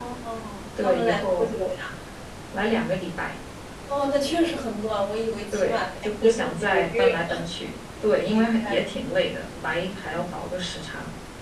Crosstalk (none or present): present